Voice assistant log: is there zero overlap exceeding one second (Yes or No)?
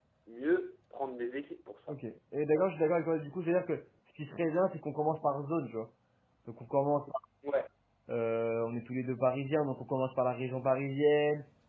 Yes